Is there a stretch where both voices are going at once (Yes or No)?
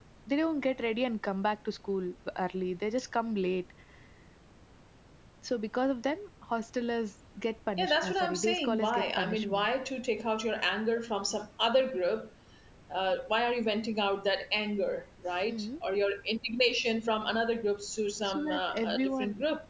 Yes